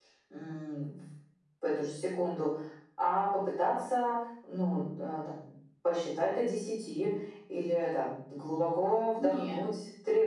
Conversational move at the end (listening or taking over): listening